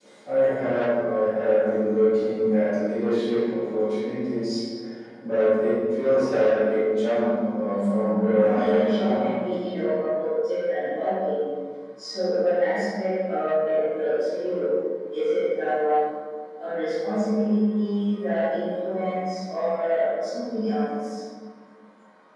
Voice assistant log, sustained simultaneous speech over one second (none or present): present